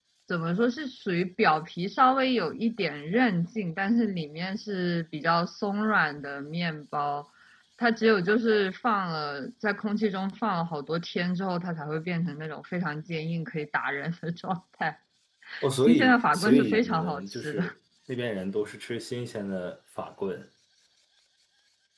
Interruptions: present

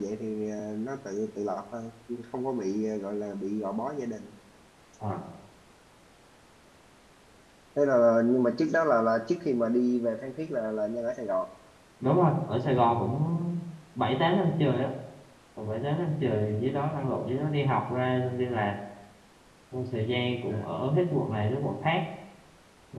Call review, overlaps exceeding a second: none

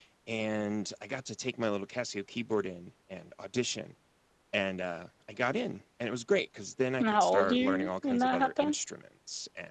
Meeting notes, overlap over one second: present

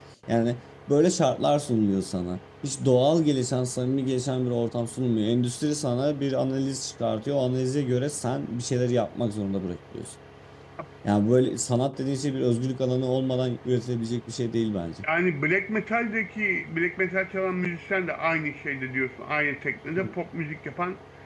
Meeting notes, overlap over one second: none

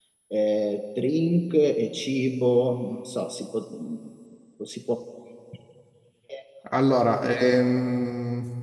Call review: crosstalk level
none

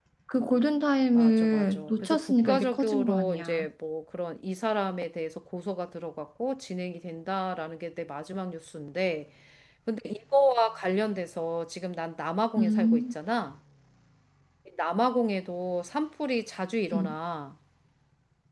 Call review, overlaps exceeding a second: present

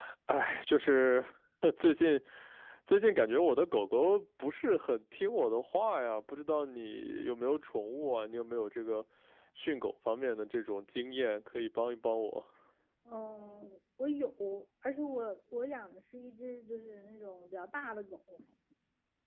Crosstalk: none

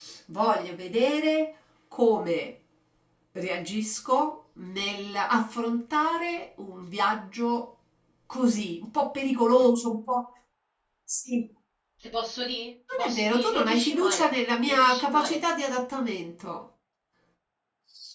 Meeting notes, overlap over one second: present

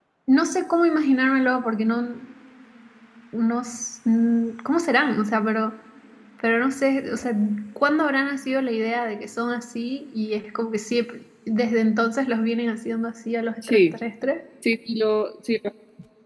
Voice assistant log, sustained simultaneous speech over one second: none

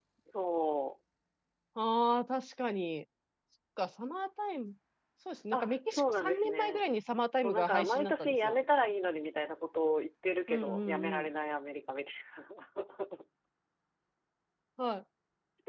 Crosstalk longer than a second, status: present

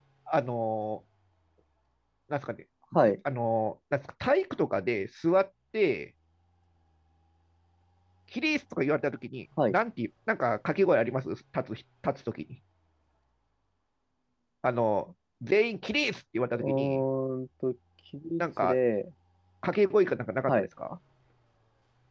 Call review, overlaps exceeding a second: none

